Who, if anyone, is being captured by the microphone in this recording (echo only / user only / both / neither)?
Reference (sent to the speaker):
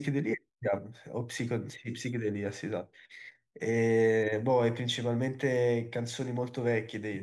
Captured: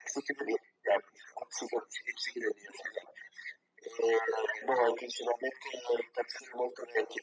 echo only